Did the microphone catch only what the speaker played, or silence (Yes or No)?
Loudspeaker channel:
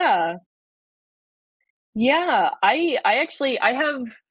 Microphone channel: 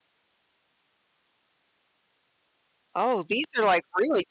No